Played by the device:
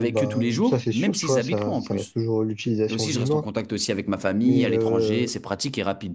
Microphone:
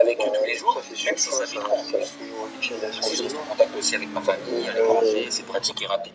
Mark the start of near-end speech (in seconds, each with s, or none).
none